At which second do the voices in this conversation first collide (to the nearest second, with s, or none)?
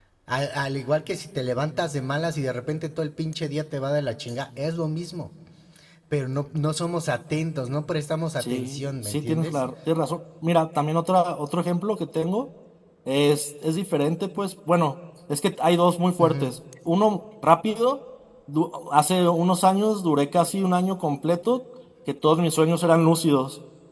8 s